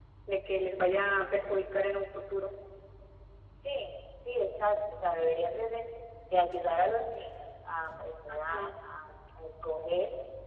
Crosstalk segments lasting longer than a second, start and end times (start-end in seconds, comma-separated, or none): none